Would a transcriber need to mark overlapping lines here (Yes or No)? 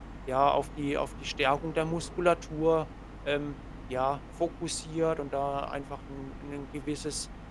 No